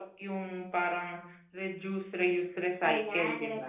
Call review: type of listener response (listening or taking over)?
taking over